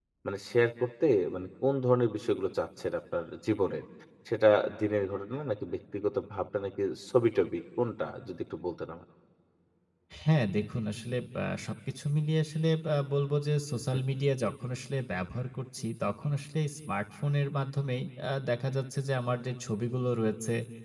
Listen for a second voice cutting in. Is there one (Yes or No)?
No